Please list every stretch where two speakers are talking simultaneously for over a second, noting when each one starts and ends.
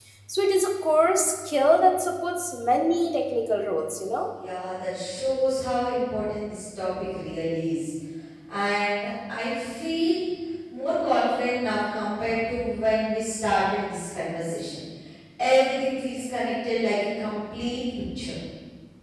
none

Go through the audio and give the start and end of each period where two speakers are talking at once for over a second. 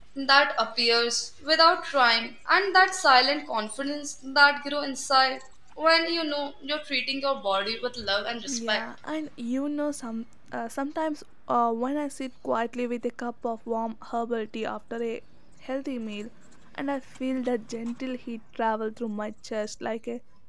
none

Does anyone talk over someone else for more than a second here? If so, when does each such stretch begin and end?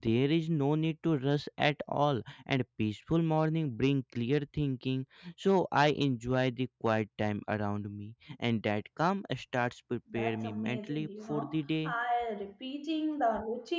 10.1-11.9

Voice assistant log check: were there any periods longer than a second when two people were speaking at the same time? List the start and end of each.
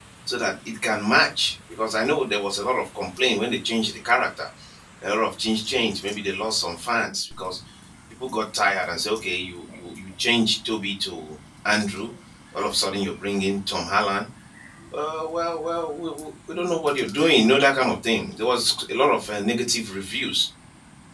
none

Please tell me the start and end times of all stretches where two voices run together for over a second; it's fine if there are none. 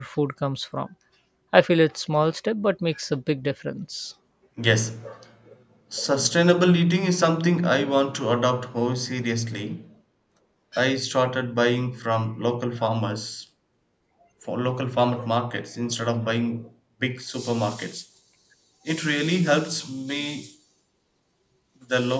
none

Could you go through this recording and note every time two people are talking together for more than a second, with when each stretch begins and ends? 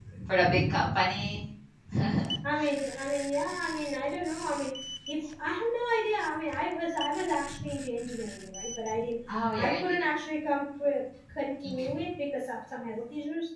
none

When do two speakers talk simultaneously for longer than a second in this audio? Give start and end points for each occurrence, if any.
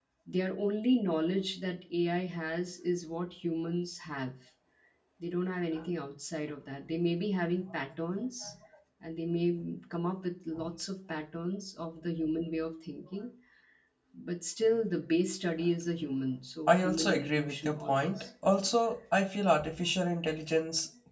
16.7-18.2

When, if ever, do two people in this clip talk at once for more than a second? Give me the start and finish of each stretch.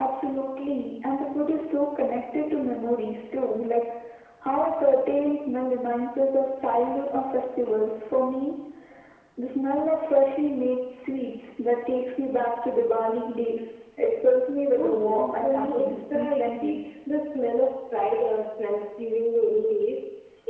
14.8-16.8

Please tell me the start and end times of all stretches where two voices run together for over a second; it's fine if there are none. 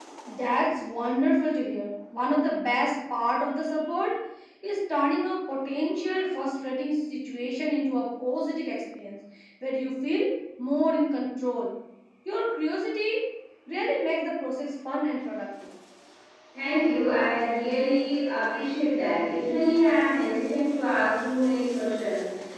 none

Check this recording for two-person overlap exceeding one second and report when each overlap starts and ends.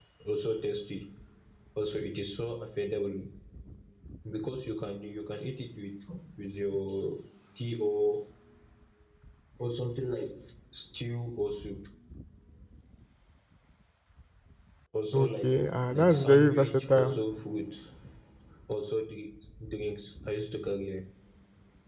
15.9-17.1

